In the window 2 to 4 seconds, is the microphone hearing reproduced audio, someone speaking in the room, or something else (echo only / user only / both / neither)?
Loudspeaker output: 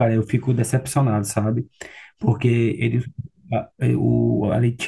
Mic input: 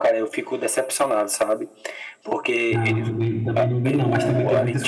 both